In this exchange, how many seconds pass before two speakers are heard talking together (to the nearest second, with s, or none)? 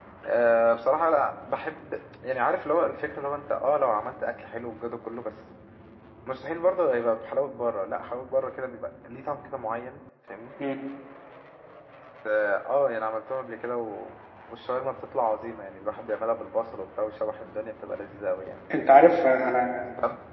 none